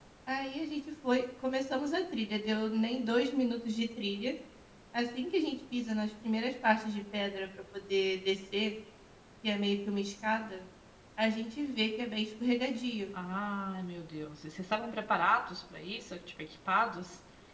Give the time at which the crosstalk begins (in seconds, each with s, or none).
none